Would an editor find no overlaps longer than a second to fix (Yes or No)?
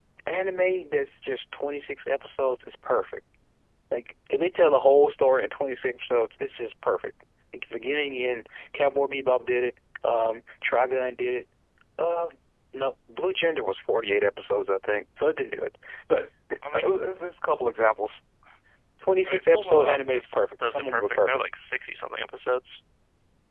No